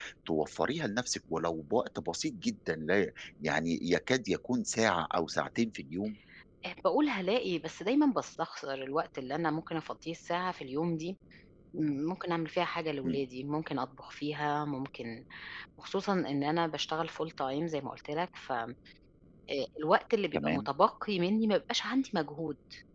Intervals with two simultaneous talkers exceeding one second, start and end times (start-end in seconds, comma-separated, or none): none